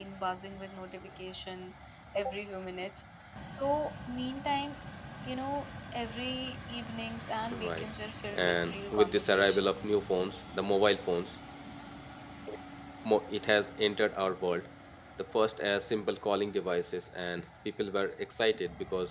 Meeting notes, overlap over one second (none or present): present